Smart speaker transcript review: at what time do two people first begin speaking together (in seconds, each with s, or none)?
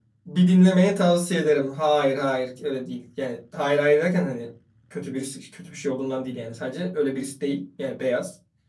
none